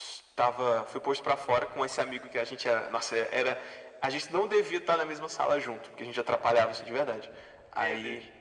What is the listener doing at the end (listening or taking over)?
listening